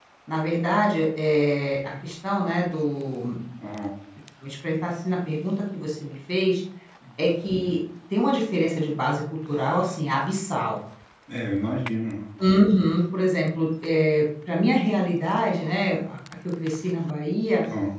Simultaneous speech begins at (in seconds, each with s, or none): none